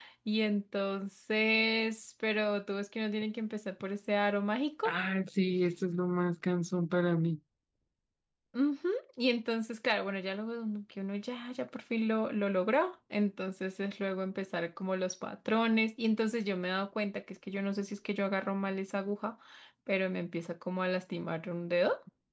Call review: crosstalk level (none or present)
none